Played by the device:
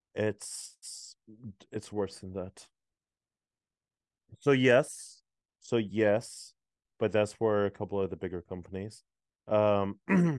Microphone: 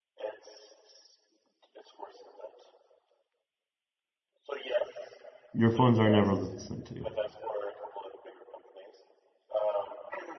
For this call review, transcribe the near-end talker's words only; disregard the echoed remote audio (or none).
Your phones are never listening to you.